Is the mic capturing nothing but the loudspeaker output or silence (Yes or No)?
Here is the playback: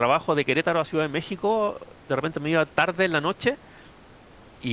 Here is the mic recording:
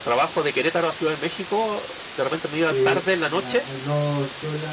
No